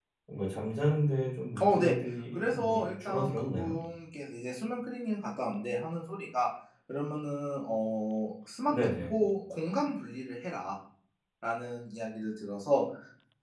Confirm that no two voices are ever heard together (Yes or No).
No